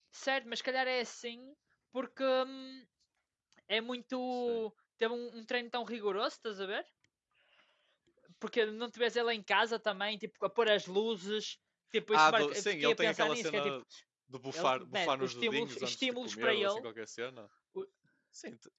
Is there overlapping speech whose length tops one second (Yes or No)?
Yes